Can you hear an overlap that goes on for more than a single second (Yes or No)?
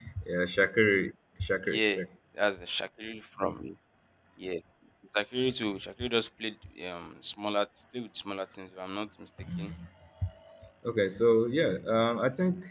No